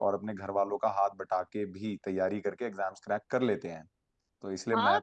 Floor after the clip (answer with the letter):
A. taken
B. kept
A